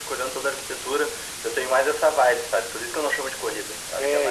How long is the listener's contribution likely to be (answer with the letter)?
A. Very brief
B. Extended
B